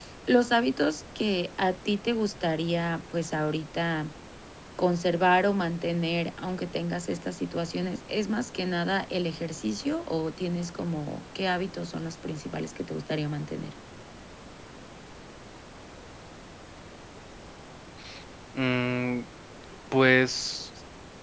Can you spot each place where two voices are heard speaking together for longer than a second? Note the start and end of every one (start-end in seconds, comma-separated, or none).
none